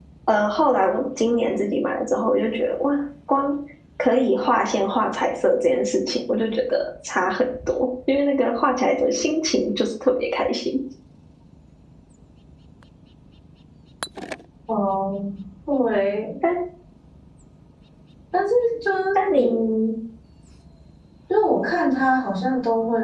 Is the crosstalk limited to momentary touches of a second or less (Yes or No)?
Yes